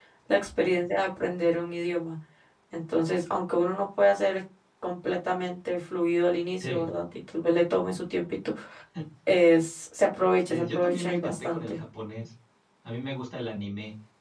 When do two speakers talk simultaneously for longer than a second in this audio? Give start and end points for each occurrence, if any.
10.5-11.7

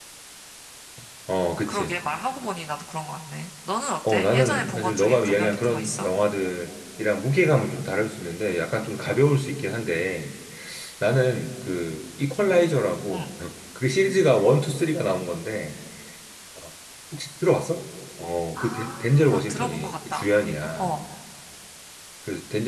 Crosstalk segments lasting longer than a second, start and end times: 4.1-6.1, 18.6-20.3

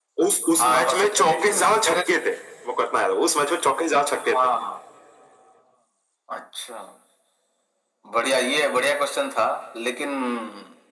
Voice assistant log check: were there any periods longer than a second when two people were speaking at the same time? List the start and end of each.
0.6-2.0

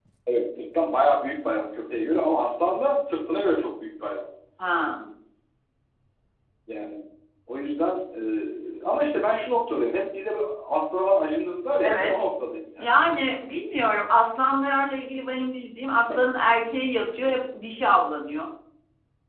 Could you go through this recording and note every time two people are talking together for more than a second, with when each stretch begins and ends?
none

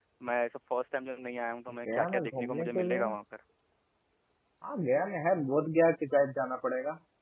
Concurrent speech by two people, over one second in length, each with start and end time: 1.9-3.1

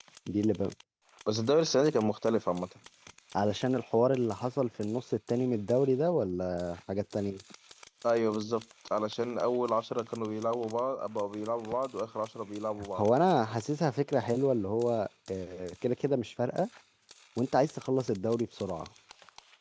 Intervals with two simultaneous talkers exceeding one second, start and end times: none

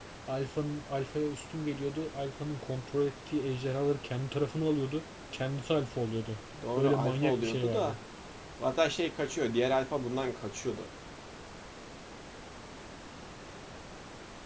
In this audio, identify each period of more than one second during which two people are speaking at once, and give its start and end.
6.8-8.0

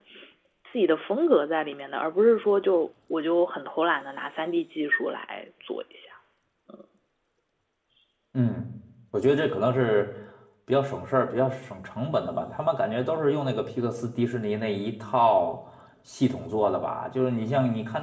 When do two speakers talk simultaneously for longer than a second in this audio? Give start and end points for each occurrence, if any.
none

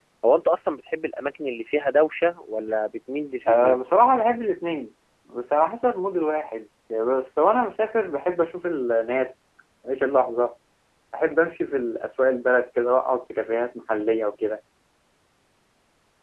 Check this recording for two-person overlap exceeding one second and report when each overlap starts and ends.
none

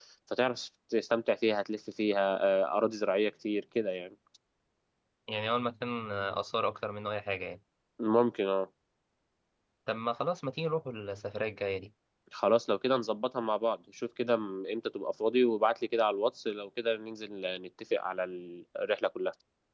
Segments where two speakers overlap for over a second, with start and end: none

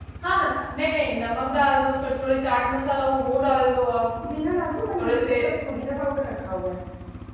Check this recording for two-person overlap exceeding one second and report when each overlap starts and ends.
none

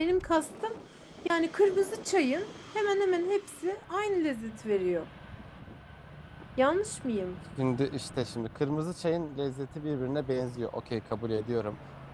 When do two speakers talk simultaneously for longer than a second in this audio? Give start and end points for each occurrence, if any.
none

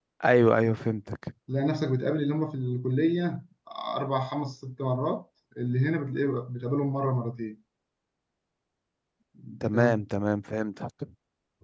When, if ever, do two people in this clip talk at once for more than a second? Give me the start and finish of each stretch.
none

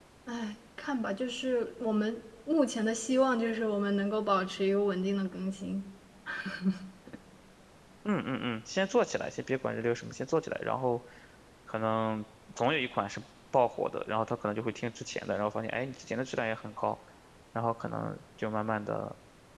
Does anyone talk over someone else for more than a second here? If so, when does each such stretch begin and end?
none

